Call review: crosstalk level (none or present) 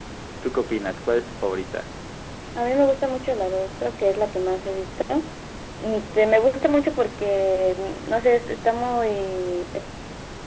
none